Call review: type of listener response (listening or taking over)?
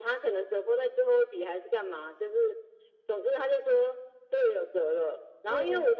listening